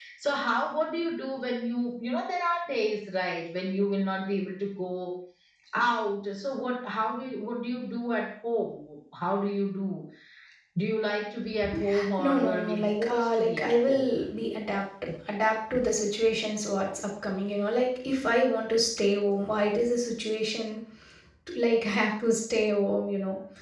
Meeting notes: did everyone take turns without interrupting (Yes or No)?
No